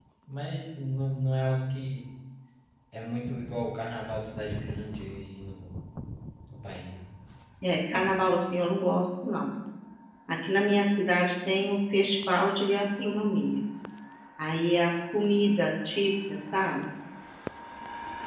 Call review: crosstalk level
none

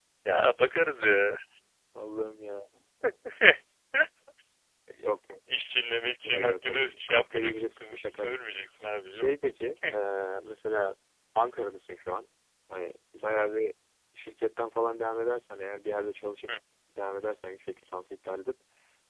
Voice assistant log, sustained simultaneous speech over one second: present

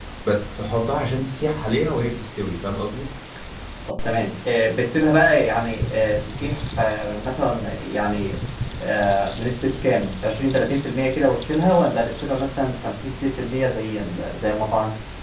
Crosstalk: none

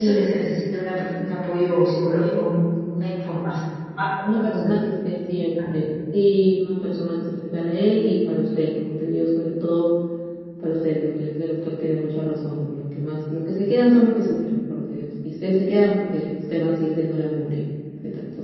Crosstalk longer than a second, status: none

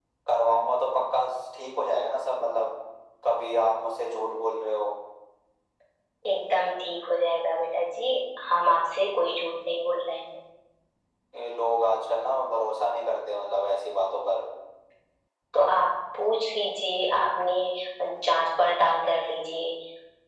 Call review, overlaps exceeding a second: none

